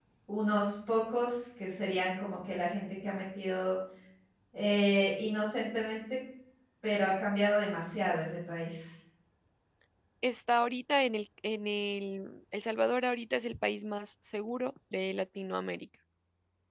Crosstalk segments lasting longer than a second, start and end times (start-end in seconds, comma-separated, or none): none